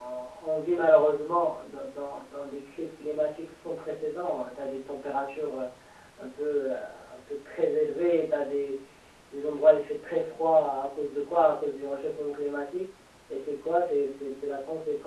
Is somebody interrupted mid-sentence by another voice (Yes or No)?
No